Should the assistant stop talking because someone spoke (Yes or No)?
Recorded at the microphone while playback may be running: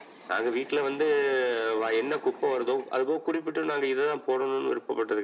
No